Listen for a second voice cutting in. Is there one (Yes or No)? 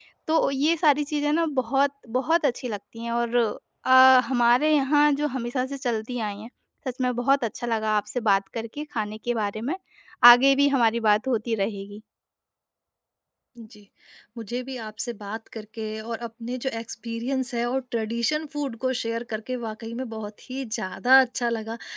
No